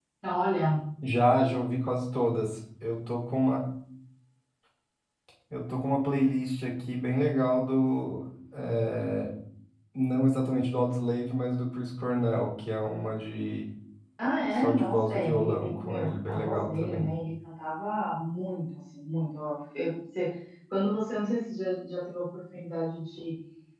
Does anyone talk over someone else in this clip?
Yes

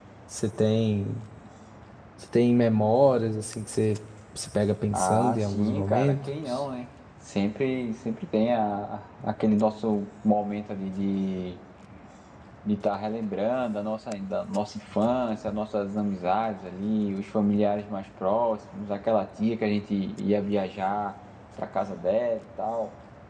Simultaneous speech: Yes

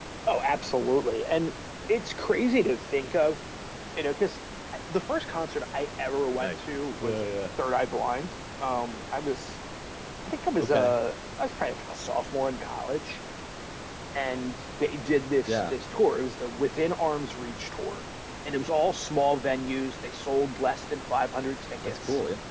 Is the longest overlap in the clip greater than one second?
No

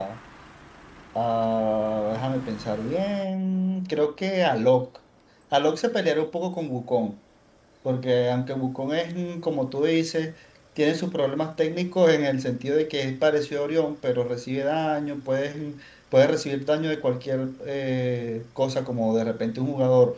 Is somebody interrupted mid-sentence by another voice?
No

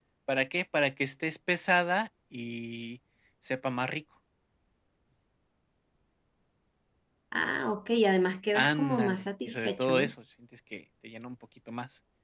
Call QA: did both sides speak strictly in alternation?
No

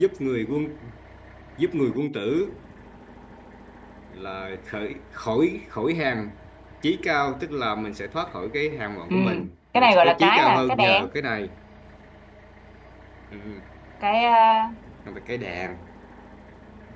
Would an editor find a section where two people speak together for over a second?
Yes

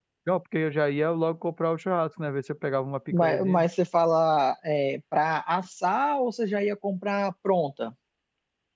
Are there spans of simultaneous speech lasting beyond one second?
No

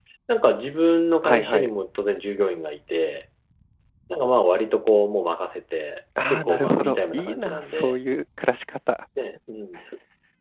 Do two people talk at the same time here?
Yes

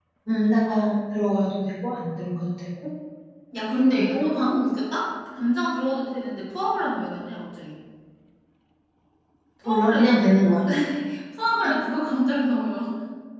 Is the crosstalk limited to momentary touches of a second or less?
Yes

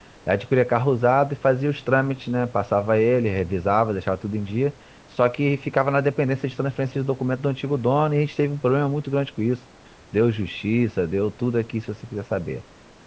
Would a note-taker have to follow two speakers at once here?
No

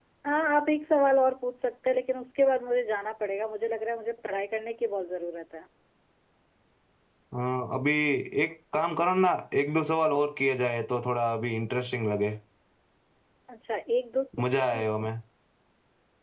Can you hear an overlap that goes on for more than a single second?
No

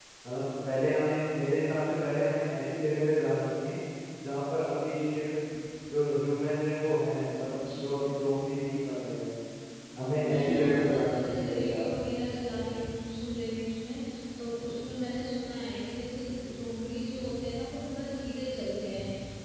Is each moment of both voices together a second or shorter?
No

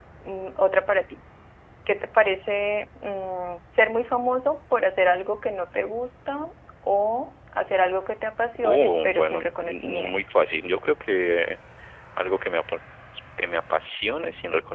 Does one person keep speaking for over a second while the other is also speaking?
Yes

